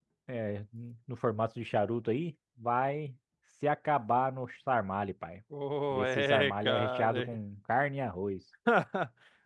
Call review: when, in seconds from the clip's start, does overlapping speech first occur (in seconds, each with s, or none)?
5.9 s